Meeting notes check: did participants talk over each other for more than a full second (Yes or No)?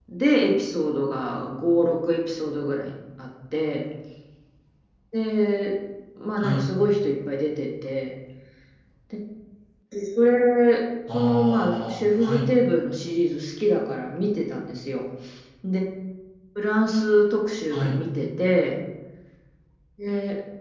Yes